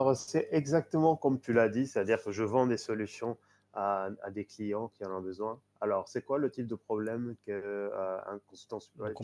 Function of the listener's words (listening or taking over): taking over